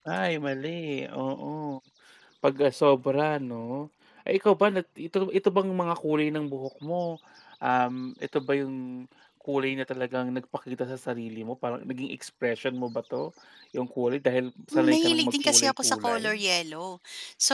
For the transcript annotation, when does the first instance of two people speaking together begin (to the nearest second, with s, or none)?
15 s